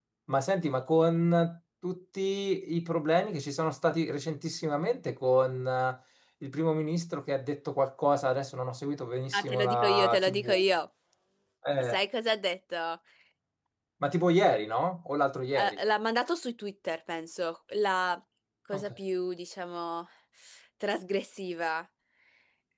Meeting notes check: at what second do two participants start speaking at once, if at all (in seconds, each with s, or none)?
9.3 s